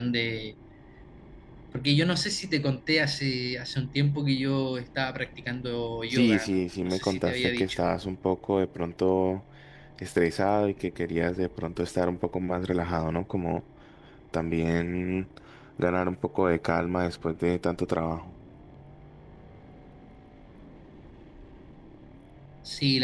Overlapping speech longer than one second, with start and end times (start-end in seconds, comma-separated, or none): 6.1-7.8